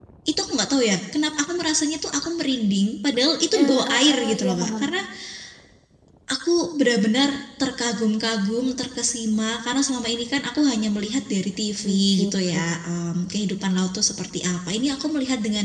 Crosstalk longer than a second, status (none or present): present